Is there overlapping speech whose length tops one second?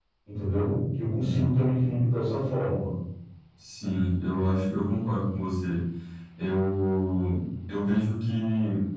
No

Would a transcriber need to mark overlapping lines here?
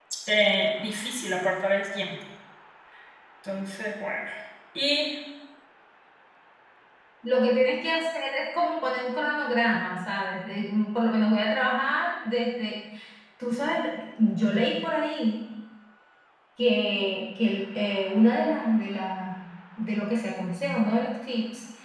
No

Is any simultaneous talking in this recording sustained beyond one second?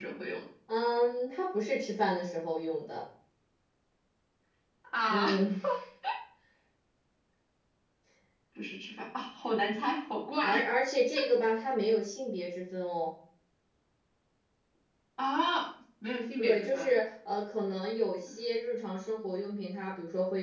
No

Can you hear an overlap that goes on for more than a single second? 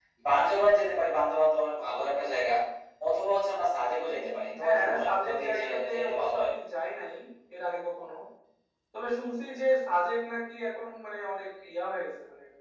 Yes, from 4.1 s

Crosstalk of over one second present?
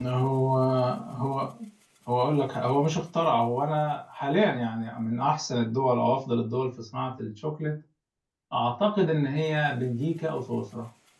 No

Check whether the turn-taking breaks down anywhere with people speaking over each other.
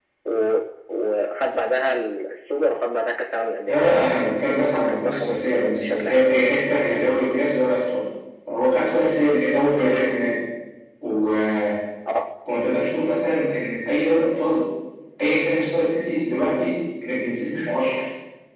Yes, from 3.7 s

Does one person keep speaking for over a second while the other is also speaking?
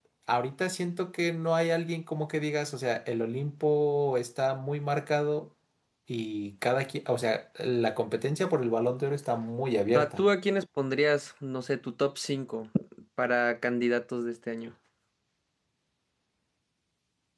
No

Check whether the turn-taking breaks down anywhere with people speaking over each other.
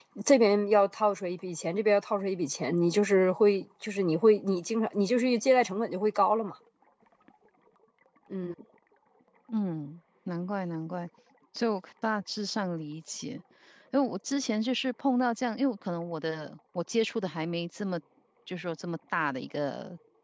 No

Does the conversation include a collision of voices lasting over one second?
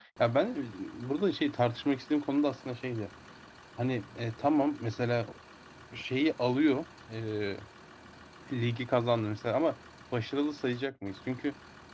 No

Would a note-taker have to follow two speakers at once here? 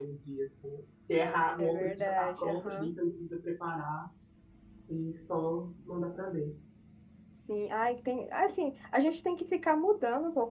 Yes, from 1.6 s

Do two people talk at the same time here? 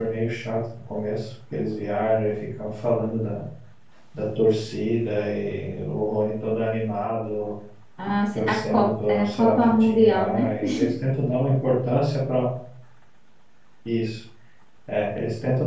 Yes, from 8.3 s

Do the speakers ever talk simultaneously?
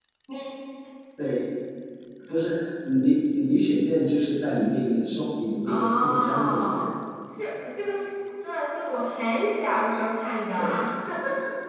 Yes, from 5.6 s

